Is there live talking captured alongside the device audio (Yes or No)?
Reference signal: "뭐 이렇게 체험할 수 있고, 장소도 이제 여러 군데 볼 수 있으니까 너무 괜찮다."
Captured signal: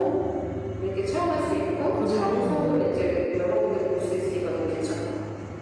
Yes